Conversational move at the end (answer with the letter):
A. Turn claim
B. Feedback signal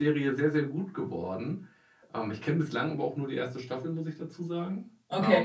B